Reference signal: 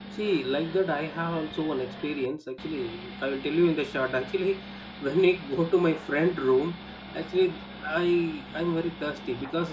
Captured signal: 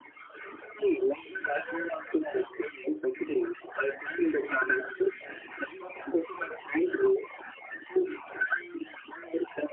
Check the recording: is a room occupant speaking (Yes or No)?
Yes